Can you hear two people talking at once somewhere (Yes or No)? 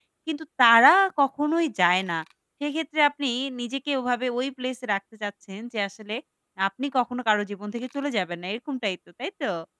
No